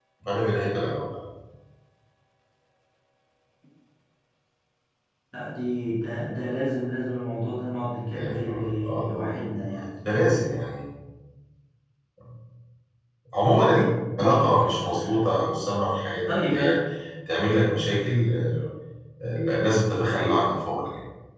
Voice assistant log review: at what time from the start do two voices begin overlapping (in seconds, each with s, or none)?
8.1 s